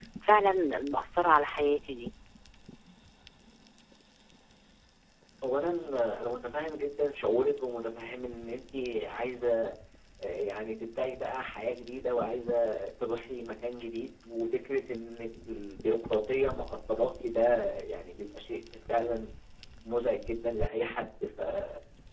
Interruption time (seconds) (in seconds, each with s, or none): none